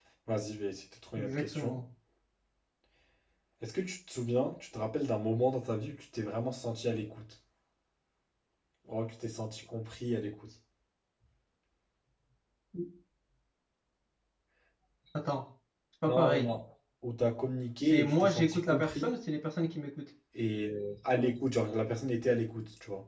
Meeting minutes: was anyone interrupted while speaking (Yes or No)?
Yes